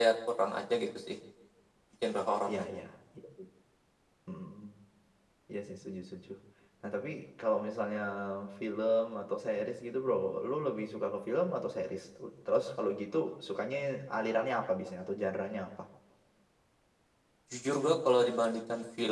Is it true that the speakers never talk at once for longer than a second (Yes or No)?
Yes